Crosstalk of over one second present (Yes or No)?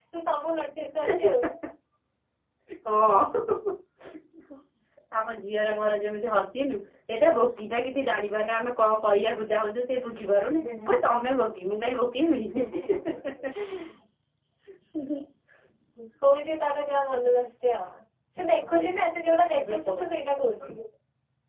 No